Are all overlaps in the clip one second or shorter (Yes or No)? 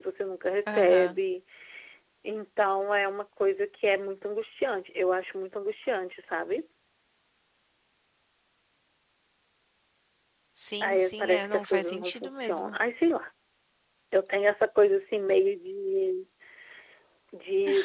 No